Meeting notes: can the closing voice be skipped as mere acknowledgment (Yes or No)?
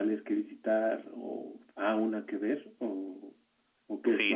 No